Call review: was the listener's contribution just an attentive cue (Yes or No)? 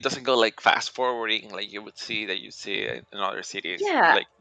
No